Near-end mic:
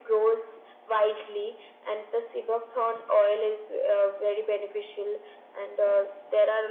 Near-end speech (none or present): none